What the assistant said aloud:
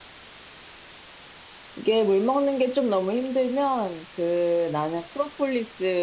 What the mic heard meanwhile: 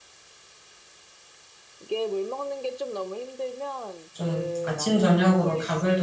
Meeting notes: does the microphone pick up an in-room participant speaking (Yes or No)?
Yes